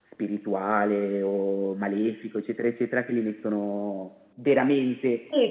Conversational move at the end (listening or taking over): taking over